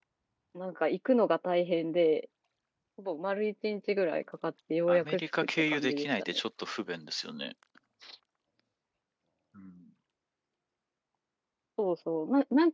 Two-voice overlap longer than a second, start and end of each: 4.9-6.4

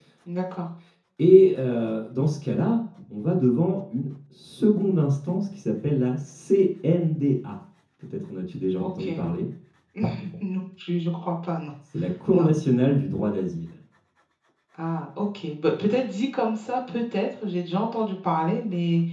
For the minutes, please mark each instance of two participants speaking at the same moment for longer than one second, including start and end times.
none

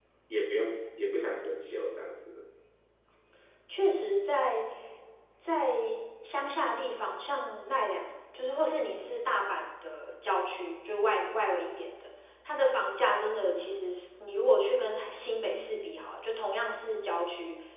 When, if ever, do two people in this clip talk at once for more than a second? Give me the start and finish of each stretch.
none

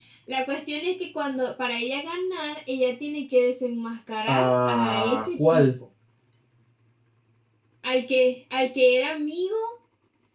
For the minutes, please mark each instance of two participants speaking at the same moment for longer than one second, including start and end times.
4.3-5.6

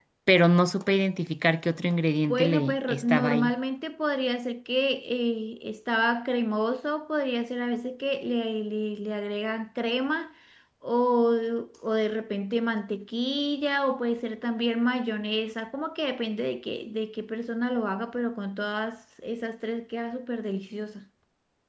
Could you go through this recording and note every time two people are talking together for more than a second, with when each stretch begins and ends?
2.3-3.5

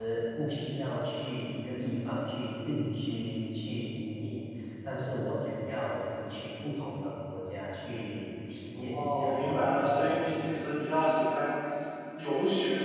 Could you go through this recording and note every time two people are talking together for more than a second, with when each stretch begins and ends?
8.7-10.4

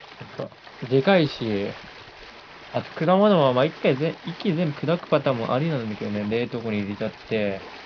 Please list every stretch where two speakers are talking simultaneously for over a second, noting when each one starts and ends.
none

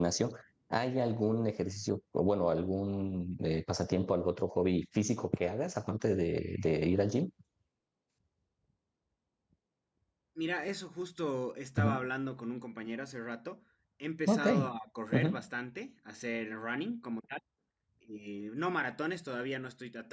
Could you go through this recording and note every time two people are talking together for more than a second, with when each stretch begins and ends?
none

